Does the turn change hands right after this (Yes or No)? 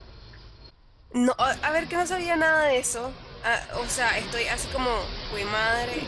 Yes